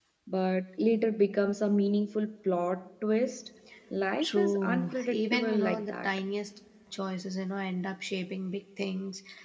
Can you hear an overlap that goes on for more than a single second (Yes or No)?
Yes